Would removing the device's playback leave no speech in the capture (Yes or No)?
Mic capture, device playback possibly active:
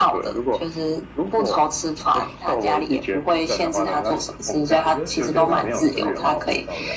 No